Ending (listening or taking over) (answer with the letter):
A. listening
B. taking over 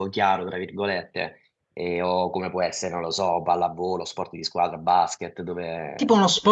B